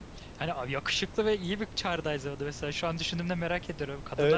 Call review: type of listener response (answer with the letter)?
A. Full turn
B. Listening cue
A